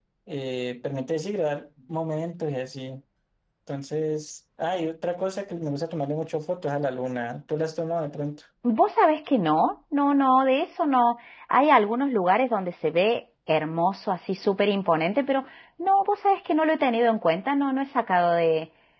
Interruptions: none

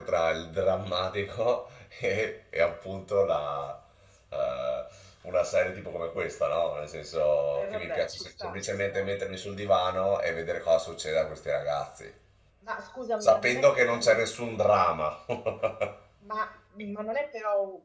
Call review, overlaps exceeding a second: present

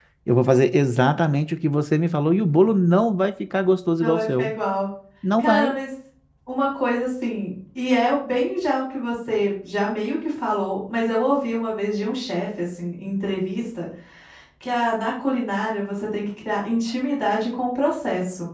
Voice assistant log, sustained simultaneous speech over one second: none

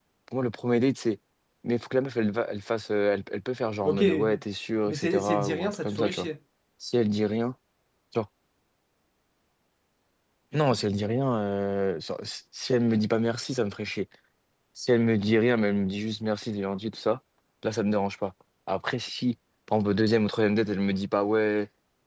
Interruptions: present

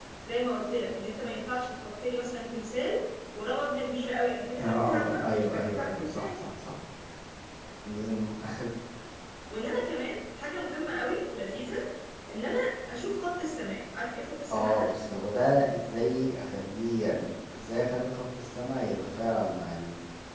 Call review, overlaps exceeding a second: present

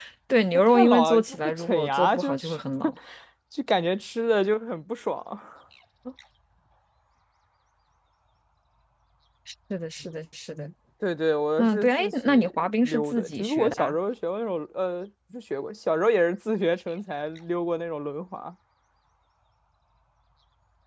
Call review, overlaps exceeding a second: present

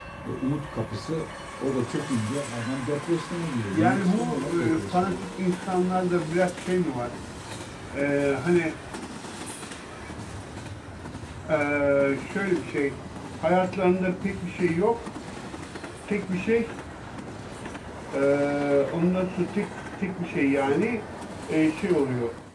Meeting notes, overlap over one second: present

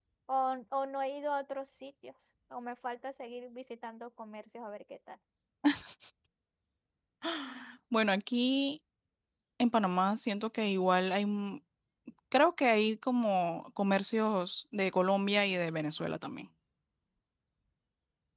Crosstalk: none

